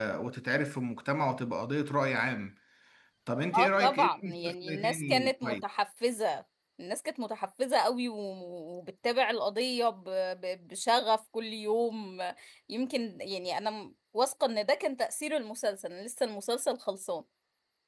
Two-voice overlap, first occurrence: 3.6 s

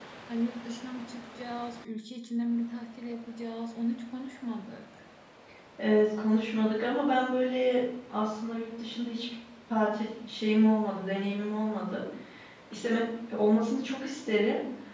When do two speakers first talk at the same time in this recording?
none

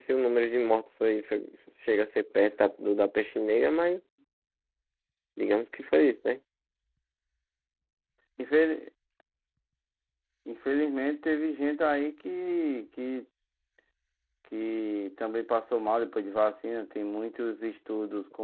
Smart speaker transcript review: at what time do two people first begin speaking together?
none

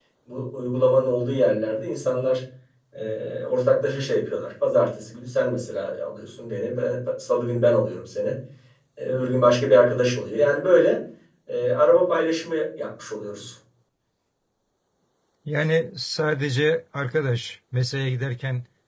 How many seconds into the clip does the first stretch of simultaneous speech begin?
none

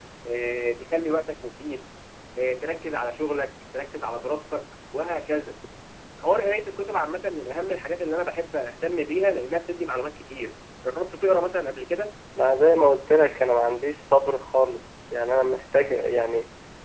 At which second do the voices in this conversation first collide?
none

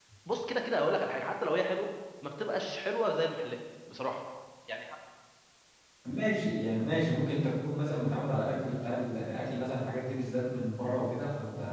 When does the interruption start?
none

